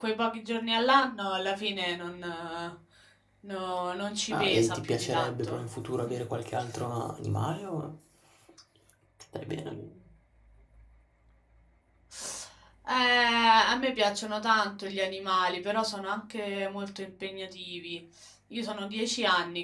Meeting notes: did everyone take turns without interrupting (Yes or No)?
No